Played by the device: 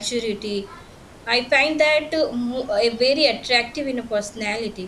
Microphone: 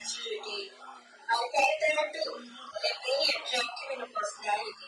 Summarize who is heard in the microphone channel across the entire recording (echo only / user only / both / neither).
echo only